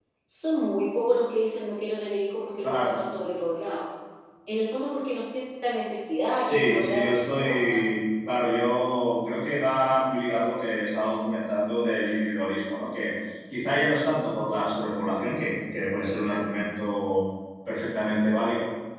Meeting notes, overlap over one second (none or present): present